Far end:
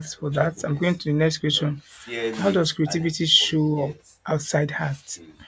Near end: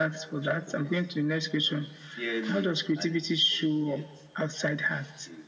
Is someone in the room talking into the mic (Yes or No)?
No